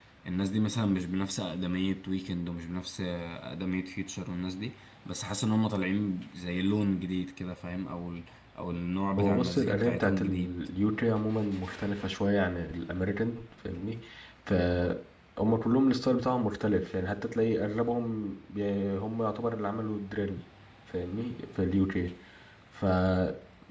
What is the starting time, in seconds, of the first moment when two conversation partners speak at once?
9.2 s

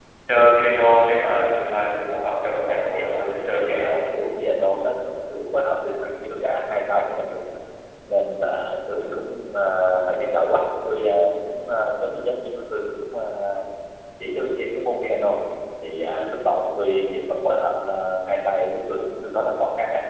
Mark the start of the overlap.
2.7 s

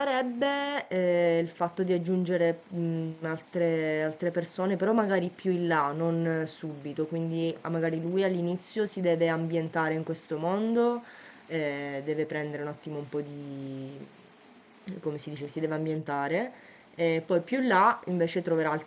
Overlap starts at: none

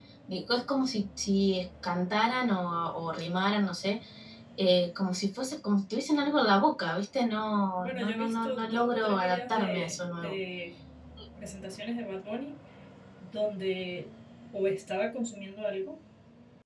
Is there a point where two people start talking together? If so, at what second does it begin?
7.8 s

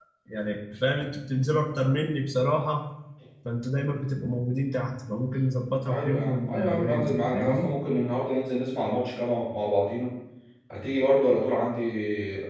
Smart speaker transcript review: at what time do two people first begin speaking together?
5.8 s

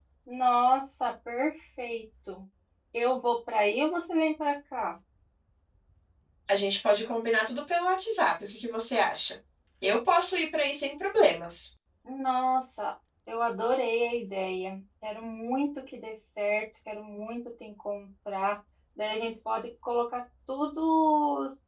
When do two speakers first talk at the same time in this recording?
none

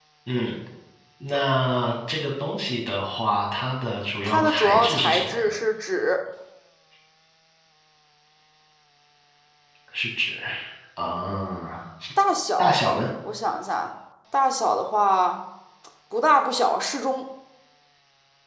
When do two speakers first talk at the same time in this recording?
4.2 s

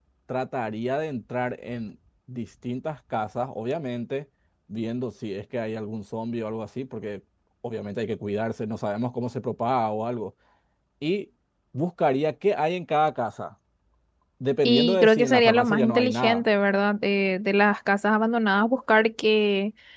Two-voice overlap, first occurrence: 14.7 s

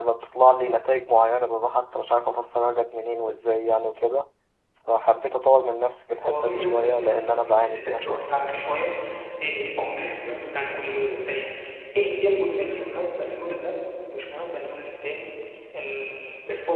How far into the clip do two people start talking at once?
6.2 s

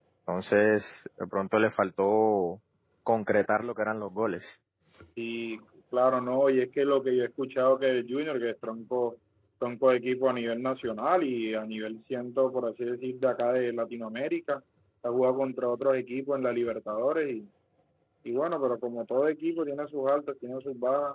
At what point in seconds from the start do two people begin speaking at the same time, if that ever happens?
none

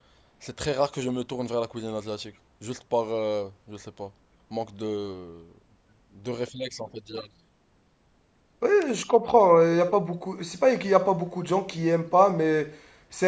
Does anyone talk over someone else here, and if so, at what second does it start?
none

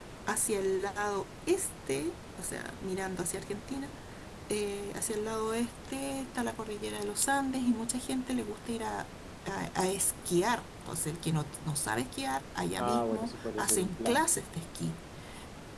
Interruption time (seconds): 12.8 s

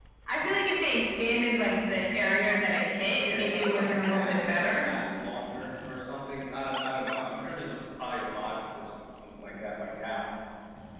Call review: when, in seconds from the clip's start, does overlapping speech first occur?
3.2 s

